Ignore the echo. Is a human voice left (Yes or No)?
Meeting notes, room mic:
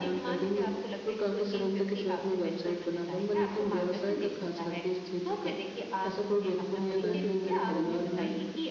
Yes